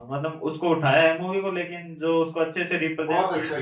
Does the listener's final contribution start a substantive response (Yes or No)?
Yes